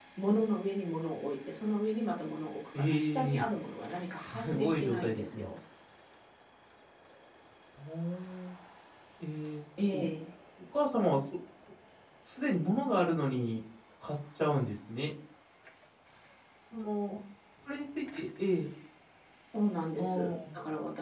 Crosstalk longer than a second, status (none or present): present